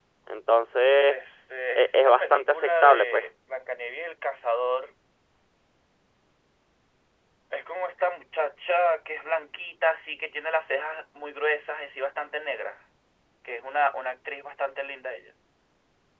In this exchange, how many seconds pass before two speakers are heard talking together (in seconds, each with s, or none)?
1.8 s